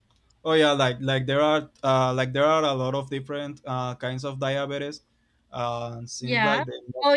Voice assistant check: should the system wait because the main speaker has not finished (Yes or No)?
No